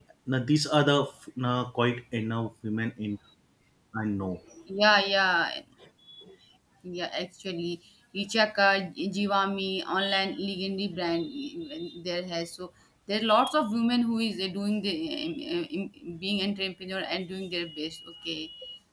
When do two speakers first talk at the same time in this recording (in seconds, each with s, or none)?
none